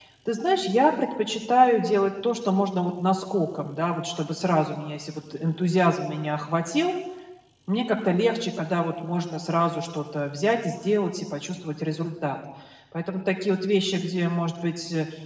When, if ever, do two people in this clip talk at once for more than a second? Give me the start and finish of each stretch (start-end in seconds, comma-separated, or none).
none